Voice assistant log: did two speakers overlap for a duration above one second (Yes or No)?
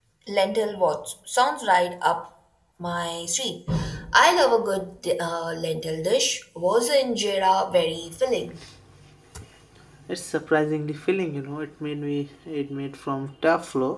No